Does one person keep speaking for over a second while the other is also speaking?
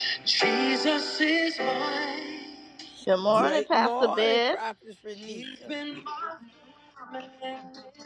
Yes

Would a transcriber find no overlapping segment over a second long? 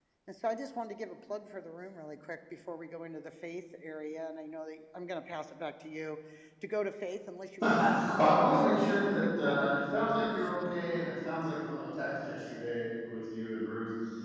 No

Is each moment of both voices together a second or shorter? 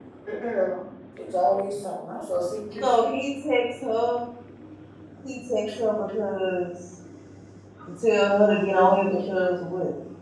Yes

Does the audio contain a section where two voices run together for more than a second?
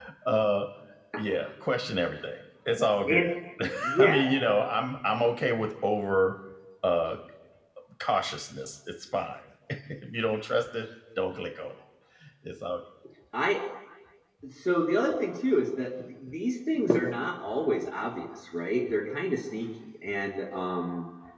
No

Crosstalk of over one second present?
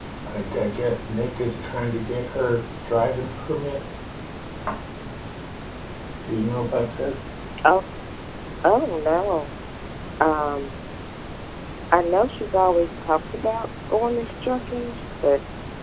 No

